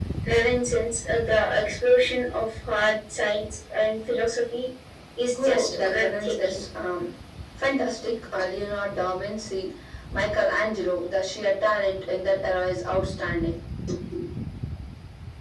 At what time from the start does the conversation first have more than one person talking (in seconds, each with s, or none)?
5.4 s